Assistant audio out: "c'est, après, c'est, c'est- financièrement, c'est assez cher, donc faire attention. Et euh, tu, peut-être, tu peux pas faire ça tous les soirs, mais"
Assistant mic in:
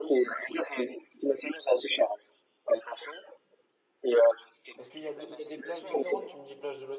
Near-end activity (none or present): present